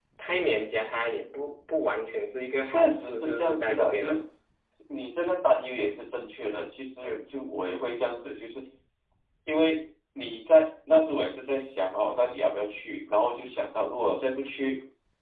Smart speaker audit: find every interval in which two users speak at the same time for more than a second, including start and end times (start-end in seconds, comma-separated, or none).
2.6-4.1